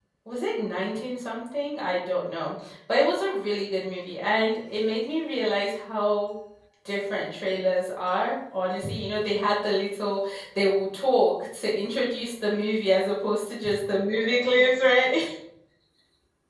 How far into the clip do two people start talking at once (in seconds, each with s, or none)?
none